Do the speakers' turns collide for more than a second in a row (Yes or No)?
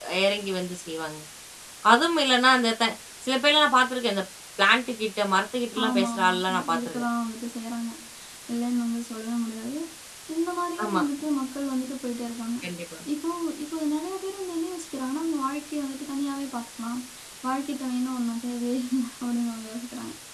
Yes